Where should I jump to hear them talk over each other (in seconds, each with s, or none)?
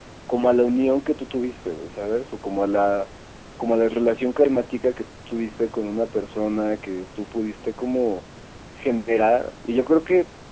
none